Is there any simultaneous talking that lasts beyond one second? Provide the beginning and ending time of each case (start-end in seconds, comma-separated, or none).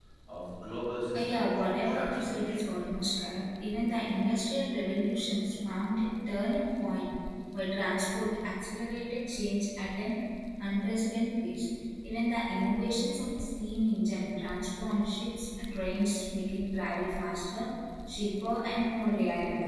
1.1-2.8